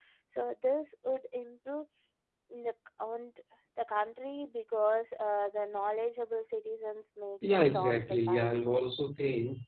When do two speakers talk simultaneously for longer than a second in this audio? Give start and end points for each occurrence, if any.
7.4-8.6

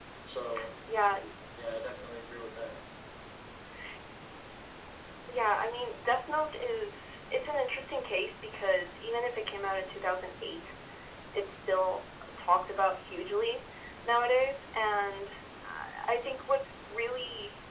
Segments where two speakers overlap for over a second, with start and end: none

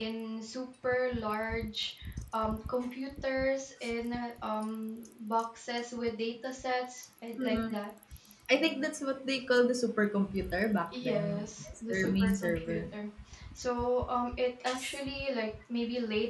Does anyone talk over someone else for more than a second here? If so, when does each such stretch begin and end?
11.0-12.8

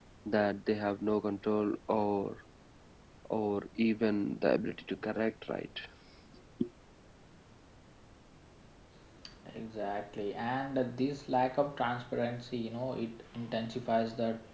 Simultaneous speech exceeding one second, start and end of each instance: none

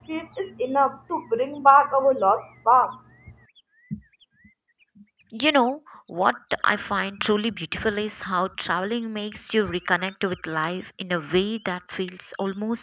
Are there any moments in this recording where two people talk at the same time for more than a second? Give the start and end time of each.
none

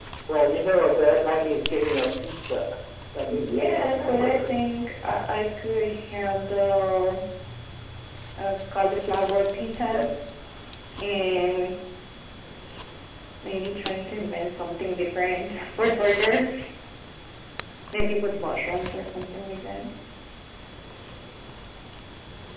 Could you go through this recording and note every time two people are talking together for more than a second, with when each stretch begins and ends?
3.3-4.5

